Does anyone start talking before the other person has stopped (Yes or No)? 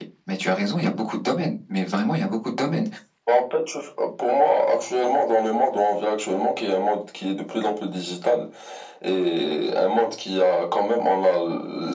No